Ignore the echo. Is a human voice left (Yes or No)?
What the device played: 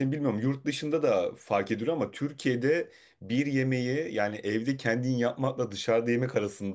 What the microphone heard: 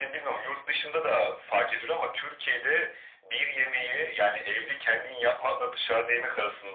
No